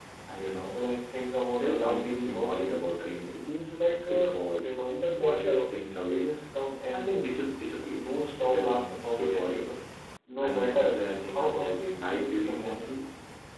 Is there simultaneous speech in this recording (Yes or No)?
Yes